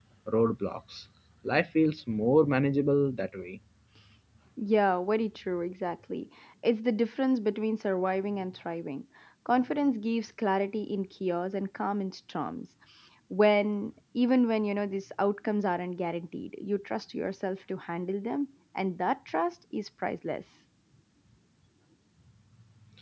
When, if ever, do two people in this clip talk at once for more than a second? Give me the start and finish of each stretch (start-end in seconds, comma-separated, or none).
none